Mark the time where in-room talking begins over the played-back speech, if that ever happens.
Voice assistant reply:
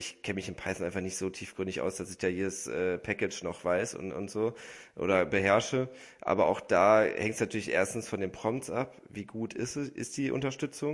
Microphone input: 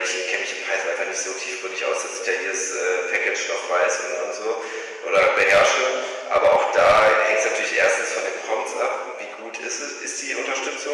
none

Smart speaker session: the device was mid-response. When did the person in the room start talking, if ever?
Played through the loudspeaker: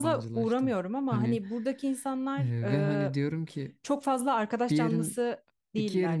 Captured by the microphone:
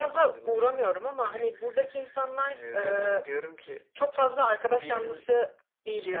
none

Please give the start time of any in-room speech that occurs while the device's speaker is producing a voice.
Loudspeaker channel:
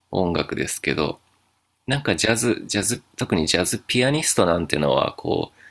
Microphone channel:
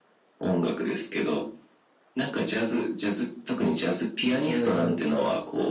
4.4 s

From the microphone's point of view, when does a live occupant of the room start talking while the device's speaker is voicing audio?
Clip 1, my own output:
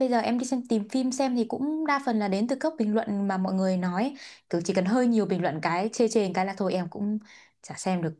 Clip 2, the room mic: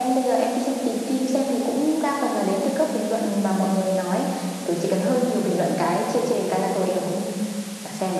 none

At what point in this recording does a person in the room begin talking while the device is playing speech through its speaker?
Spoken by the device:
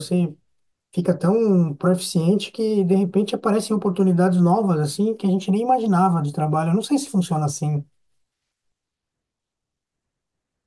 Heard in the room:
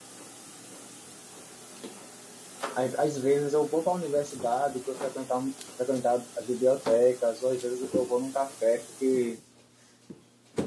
2.7 s

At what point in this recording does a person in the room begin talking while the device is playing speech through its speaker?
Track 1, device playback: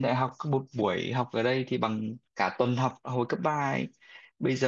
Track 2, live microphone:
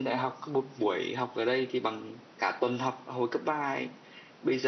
none

